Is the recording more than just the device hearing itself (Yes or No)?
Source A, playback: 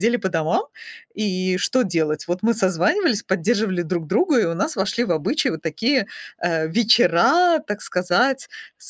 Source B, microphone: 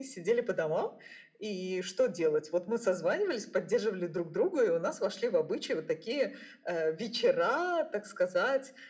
No